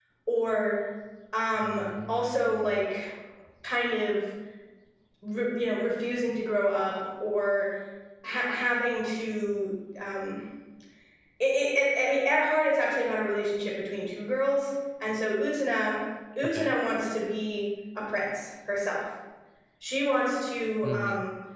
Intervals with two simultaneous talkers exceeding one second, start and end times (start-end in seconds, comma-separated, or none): 1.6-2.8